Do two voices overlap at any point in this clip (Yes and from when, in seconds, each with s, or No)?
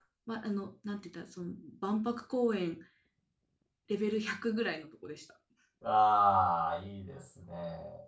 No